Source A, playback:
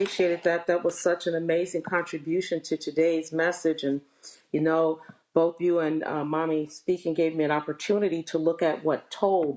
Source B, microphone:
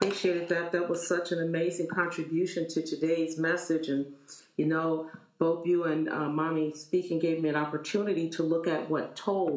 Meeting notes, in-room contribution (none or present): none